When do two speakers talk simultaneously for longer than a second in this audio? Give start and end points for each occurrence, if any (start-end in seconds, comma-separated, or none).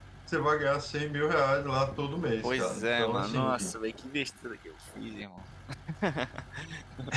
2.4-3.7